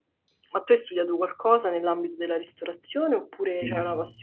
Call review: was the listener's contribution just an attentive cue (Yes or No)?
No